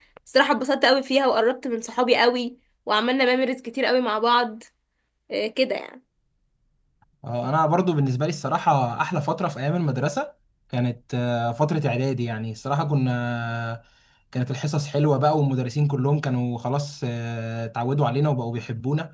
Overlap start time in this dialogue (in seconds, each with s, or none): none